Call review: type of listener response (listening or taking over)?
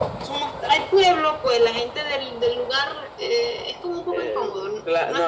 taking over